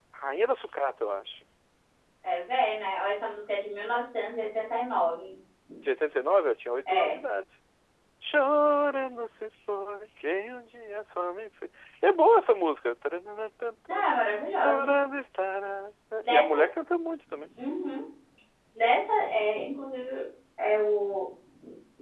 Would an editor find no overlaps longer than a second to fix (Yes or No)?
Yes